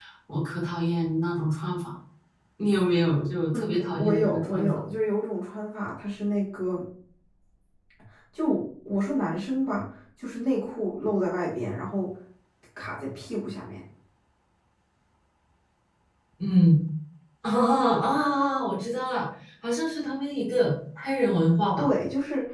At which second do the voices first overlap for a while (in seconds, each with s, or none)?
3.5 s